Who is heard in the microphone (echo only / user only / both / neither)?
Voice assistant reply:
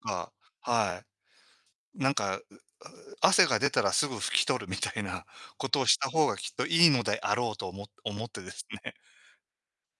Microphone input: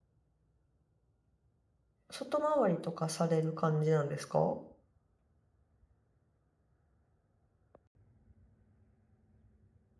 user only